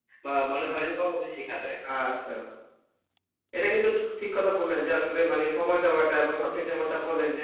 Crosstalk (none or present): none